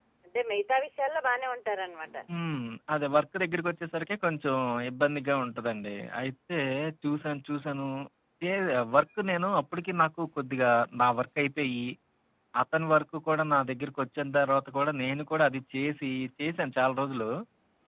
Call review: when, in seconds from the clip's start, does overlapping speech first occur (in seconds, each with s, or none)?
none